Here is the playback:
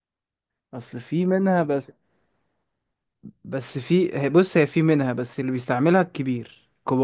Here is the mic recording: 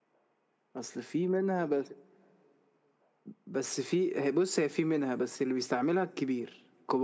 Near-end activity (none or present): none